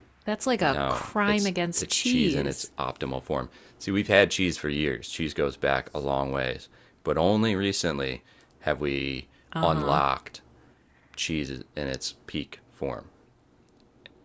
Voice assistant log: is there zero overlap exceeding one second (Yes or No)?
No